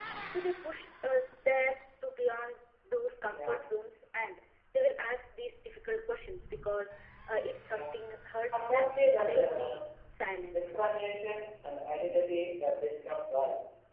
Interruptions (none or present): present